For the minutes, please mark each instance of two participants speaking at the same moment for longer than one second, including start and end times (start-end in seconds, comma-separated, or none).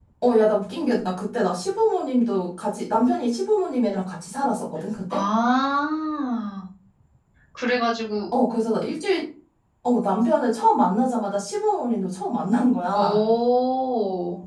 none